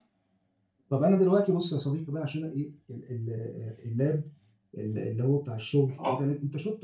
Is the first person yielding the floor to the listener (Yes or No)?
No